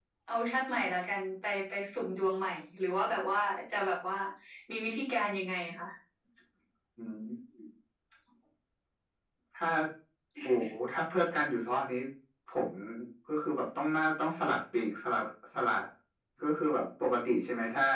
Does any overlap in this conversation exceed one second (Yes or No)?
No